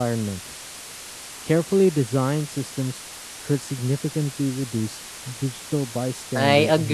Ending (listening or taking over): taking over